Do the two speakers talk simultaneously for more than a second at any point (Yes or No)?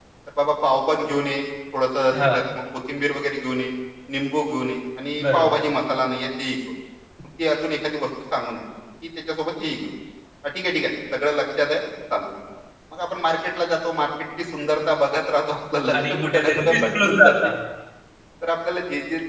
Yes